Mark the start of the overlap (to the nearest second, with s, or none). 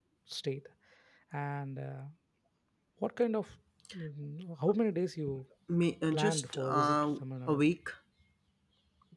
6 s